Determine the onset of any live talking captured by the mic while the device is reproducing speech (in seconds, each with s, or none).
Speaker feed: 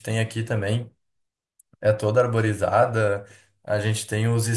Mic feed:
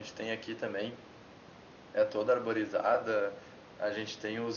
none